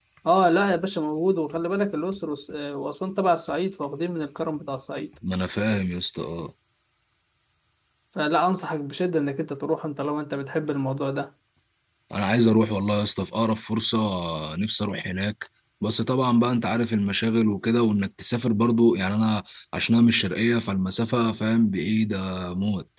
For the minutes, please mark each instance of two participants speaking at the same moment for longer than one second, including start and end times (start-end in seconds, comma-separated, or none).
none